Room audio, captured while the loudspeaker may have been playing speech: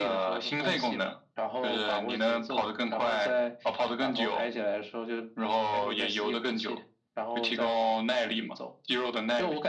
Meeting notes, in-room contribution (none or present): none